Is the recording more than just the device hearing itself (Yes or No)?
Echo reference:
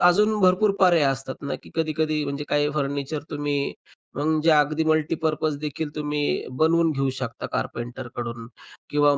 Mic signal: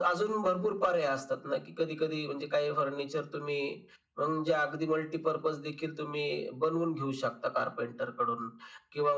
No